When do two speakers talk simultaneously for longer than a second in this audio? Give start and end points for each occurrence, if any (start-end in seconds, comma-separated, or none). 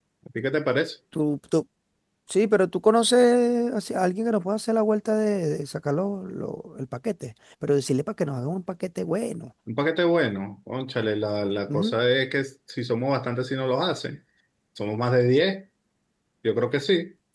none